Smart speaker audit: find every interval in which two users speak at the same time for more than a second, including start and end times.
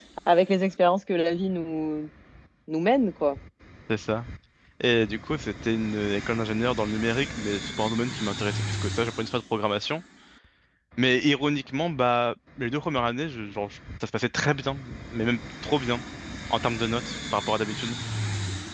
none

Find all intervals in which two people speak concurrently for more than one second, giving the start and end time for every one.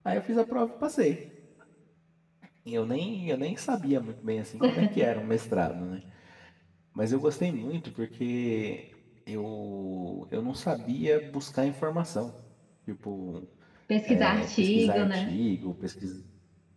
14.1-15.3

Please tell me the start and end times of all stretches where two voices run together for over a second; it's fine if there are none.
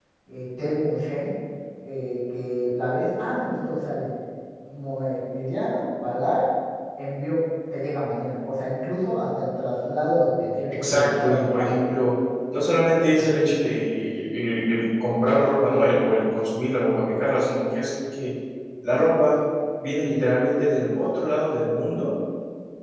10.7-11.9

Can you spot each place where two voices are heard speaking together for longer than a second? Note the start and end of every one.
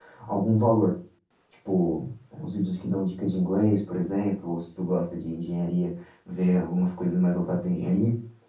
none

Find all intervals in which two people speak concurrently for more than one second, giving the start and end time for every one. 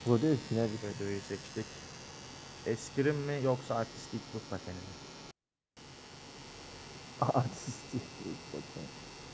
none

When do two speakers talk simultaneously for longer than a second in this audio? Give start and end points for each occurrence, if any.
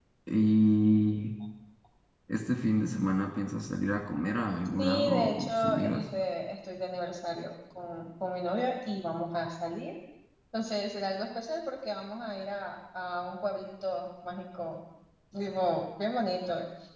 4.8-6.0

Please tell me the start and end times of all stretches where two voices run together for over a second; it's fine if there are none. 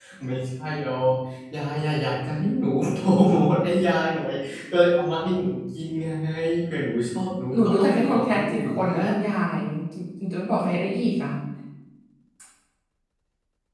7.5-8.9

